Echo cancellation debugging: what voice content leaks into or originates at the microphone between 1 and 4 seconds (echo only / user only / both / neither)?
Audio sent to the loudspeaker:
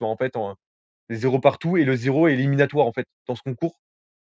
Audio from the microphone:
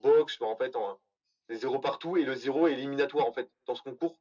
echo only